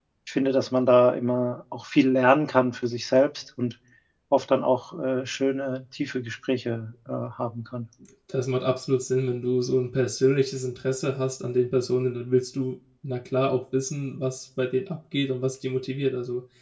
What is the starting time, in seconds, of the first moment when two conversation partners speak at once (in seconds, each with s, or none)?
none